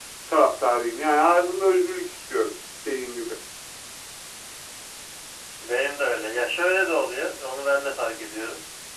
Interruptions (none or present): none